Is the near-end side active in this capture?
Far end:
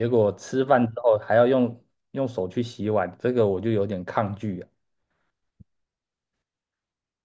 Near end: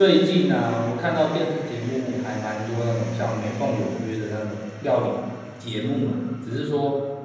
Yes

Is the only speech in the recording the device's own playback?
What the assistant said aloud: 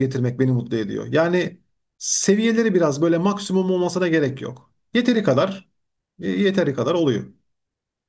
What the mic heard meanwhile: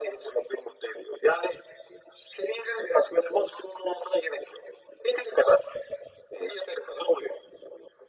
Yes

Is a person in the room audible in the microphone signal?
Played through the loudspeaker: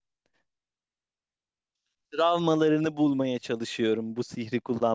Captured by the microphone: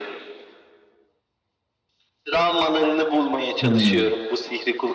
Yes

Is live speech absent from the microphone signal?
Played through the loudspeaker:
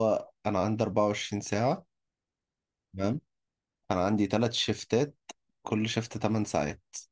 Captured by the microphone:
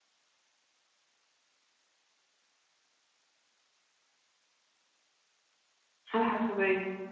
No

